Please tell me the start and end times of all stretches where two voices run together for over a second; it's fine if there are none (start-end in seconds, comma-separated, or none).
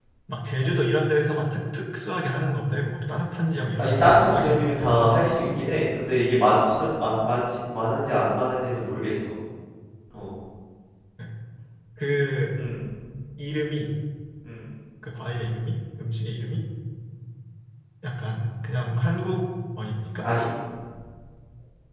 3.8-5.1